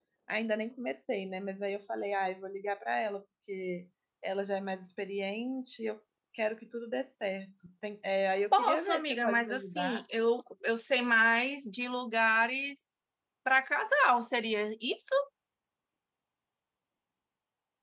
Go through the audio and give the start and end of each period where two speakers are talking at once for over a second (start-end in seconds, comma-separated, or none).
8.5-10.0